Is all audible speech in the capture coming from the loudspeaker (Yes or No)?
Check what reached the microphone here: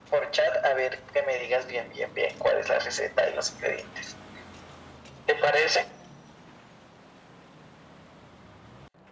Yes